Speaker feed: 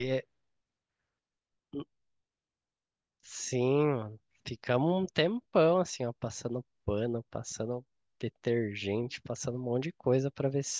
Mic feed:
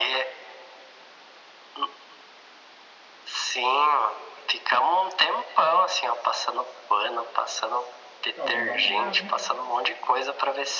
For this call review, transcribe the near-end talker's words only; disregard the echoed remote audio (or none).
Ó, eu vou dar uma olhada, hein?